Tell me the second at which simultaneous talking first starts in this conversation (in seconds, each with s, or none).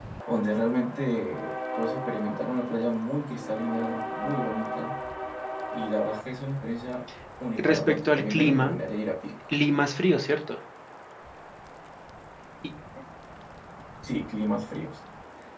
7.6 s